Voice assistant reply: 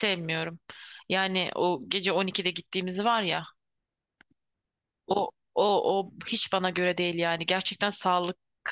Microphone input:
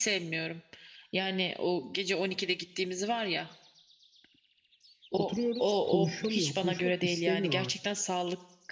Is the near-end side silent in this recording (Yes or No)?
No